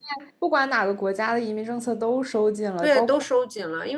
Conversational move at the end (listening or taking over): taking over